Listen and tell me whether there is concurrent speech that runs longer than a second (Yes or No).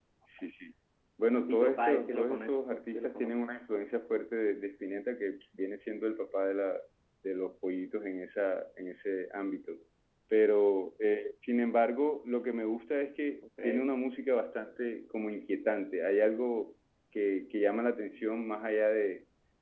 Yes